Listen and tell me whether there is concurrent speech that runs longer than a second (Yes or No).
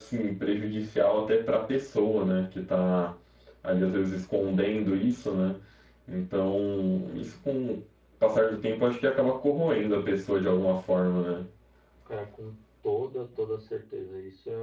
No